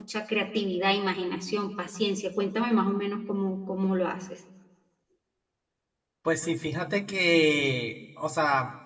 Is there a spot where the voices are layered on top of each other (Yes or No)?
No